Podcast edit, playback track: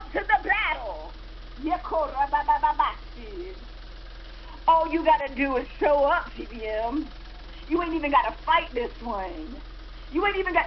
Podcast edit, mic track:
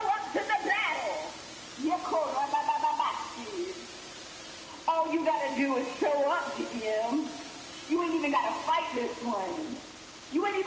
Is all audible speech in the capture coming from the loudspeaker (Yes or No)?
Yes